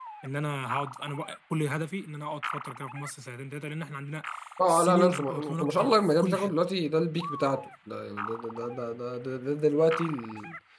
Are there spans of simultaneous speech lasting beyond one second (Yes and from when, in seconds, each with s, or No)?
Yes, from 4.7 s